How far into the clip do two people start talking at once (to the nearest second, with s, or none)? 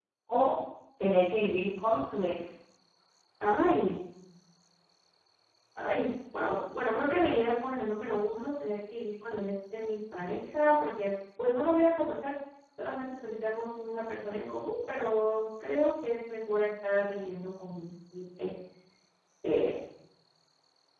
none